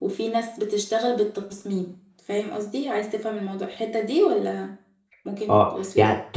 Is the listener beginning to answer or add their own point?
Yes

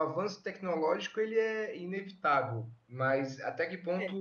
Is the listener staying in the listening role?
Yes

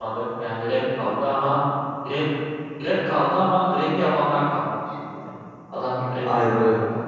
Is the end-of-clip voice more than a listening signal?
Yes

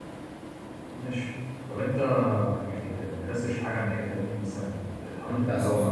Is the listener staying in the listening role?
No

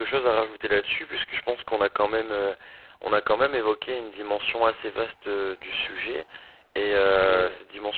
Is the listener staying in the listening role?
Yes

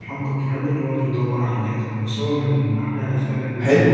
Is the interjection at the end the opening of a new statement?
Yes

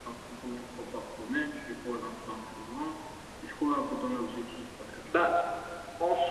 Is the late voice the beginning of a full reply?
Yes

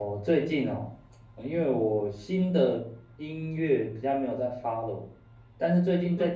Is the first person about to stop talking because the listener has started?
No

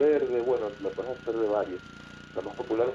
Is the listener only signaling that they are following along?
Yes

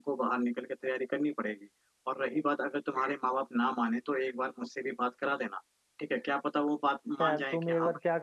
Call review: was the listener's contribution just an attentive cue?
No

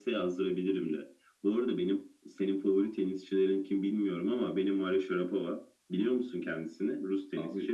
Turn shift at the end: Yes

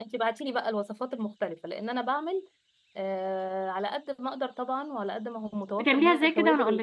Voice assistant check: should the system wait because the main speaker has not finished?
No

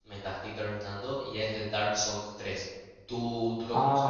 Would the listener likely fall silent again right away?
No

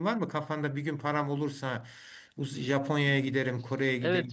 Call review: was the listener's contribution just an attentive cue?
No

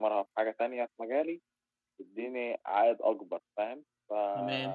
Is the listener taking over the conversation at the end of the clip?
Yes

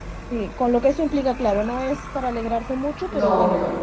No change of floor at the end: Yes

